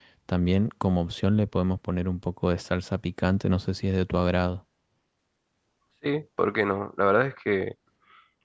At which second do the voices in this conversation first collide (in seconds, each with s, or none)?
none